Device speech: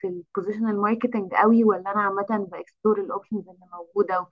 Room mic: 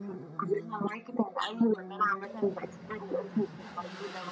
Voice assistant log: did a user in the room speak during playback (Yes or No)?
No